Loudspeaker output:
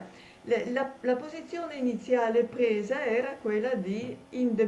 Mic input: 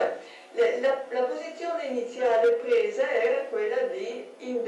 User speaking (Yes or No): No